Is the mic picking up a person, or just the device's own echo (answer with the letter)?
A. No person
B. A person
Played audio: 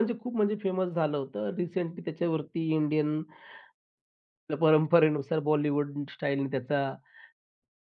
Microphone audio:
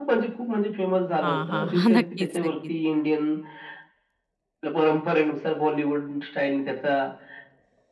B